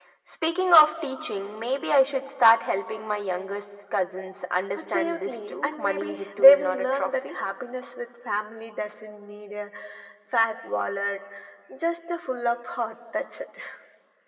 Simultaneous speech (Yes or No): Yes